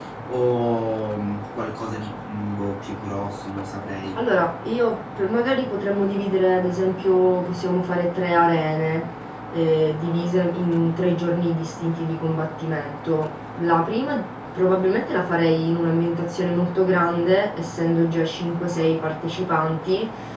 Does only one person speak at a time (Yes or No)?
Yes